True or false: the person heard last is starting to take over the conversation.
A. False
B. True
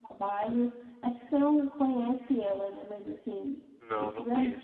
B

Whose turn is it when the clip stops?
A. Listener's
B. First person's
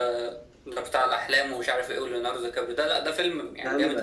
B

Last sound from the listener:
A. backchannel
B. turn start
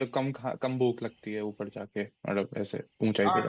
B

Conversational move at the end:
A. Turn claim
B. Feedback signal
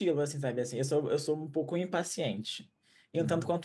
B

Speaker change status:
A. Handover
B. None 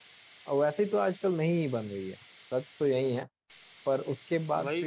A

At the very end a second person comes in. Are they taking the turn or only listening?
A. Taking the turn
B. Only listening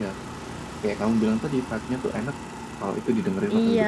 A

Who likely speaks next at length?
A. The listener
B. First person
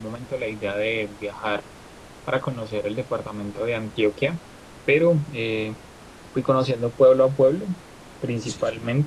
B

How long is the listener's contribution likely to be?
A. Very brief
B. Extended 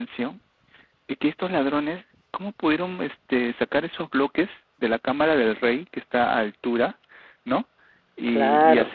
A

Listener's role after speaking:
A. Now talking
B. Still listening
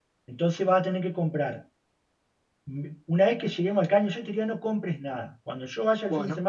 B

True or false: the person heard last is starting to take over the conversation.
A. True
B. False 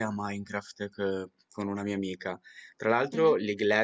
B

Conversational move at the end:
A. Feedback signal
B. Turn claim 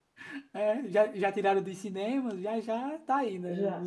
B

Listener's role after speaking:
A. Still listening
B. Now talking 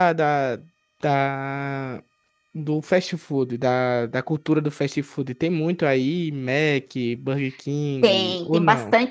B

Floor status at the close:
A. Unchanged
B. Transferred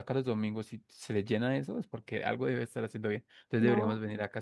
A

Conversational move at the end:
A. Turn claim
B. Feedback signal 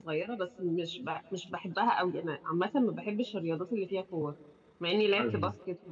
B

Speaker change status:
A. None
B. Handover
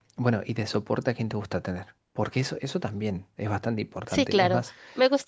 B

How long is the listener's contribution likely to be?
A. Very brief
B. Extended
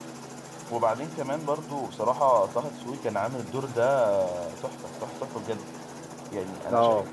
A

